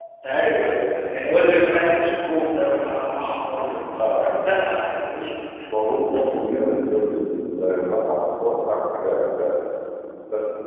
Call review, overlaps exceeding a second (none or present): none